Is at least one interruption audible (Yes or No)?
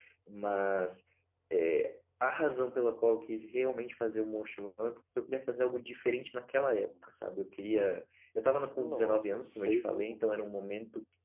Yes